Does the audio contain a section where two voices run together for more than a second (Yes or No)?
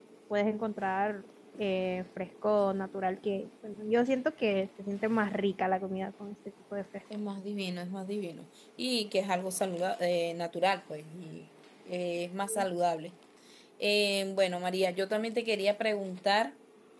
No